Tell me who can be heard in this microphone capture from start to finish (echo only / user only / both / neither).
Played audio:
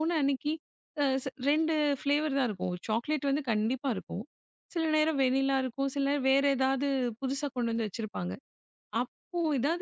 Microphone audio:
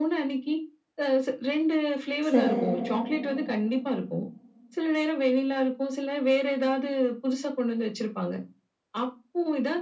both